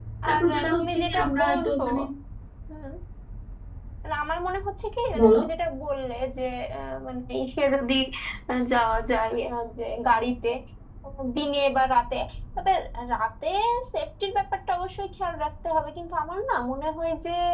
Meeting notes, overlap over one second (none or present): present